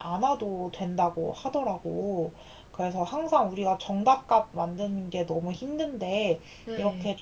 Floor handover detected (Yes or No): No